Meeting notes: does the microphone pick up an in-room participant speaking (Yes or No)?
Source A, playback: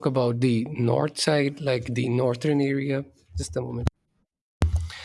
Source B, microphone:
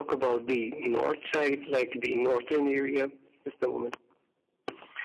No